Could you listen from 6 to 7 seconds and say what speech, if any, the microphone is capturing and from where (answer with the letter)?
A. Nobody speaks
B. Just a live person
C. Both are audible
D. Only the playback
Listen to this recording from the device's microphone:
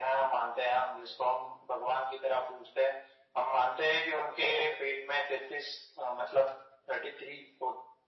D